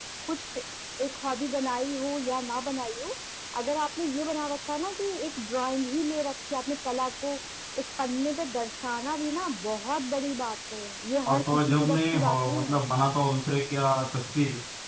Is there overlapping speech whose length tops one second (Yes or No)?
Yes